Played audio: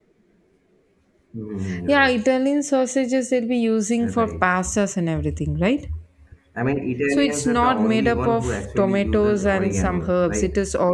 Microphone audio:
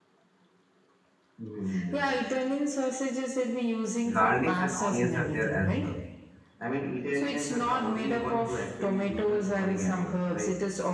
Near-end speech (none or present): present